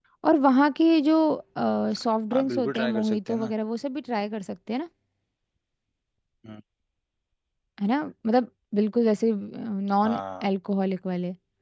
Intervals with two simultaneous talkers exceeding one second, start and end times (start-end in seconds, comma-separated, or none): 2.3-3.5